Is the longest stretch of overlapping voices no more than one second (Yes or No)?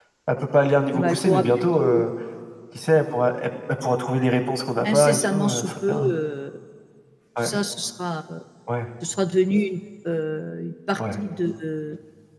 No